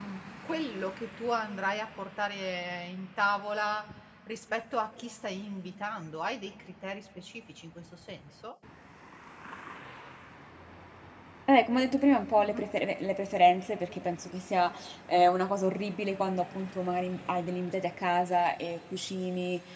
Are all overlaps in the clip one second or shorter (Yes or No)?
Yes